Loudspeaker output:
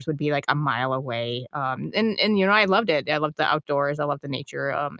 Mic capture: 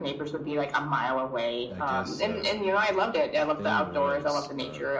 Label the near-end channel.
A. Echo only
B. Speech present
B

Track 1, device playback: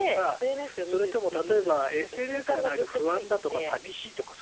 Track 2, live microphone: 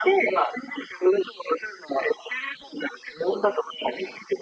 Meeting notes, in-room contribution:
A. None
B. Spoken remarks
A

